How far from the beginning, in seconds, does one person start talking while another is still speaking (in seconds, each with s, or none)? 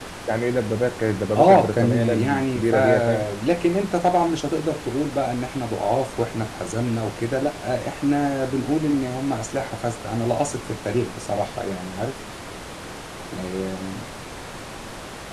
1.4 s